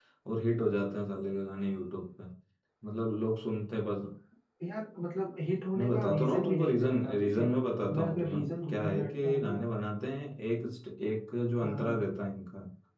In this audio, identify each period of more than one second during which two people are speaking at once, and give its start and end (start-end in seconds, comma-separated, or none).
5.8-7.5, 7.9-9.7